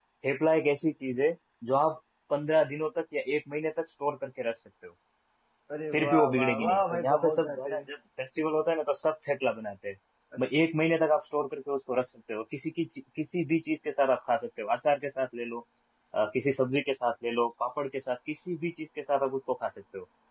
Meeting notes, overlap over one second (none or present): present